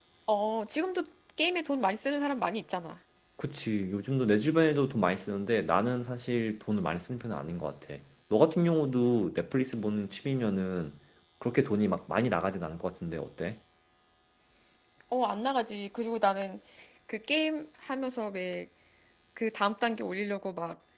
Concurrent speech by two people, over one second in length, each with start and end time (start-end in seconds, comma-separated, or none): none